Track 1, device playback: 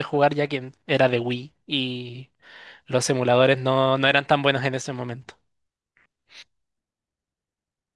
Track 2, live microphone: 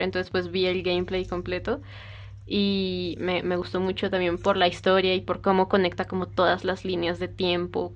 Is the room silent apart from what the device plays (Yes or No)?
No